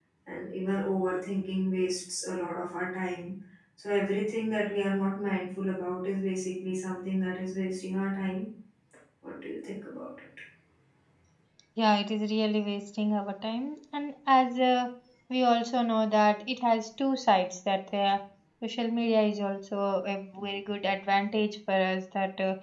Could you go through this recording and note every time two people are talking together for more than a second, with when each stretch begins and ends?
none

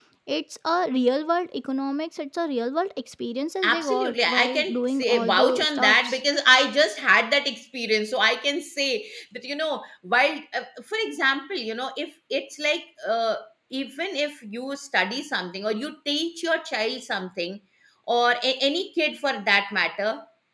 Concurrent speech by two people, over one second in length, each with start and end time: 3.6-6.2

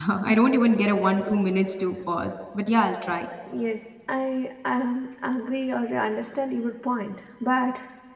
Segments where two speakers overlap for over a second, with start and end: none

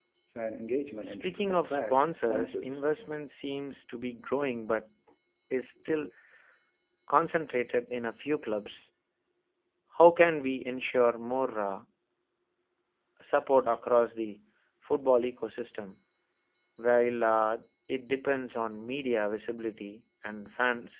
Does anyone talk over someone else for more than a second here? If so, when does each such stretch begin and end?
1.0-2.8

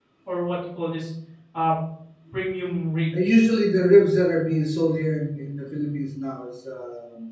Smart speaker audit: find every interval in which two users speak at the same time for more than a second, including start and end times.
none

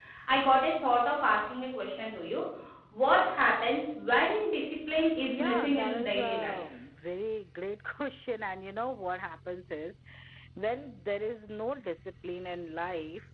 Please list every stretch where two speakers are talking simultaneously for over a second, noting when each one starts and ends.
5.3-6.6

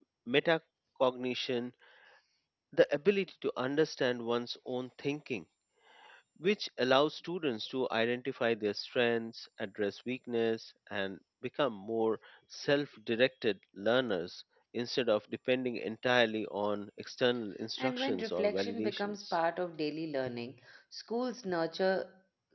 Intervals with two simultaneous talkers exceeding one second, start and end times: 17.8-19.4

